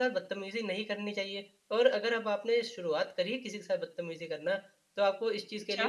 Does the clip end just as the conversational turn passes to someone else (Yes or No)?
No